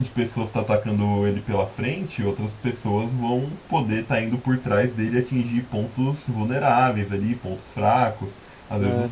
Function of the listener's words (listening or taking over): listening